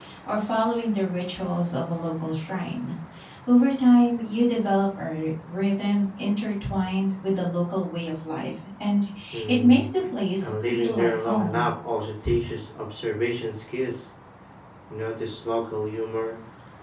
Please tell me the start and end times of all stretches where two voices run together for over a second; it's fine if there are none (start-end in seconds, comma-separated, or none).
10.4-11.6